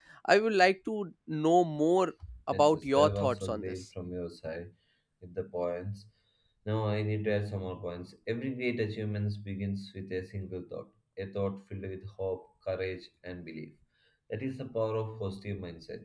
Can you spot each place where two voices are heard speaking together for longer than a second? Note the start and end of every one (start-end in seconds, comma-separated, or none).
2.5-3.7